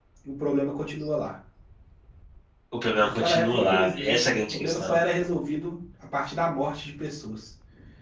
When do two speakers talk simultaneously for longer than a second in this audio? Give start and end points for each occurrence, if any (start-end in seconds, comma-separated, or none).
3.0-5.0